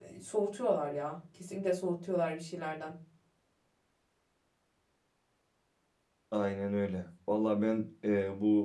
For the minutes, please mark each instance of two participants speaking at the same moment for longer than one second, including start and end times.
none

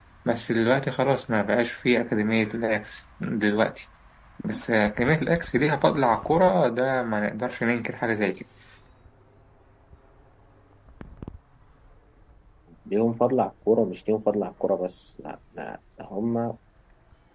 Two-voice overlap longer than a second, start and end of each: none

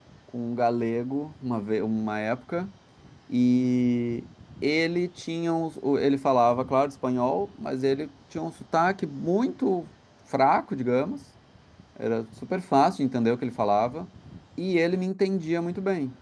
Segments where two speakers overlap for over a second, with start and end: none

